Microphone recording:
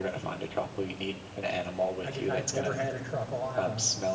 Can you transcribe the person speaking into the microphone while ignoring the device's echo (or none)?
I guess I've never had a truffle. I'm a